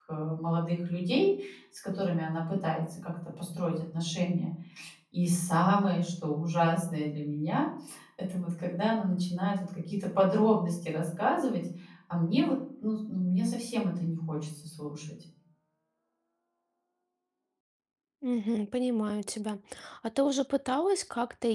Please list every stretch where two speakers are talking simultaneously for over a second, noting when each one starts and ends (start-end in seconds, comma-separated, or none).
none